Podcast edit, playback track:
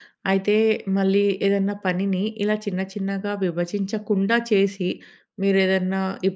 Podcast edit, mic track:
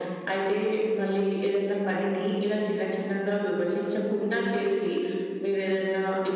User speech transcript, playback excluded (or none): none